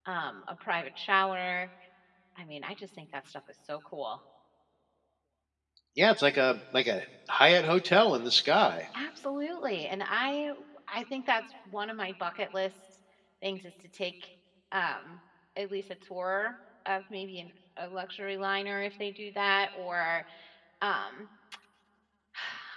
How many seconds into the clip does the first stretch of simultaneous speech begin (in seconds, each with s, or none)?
none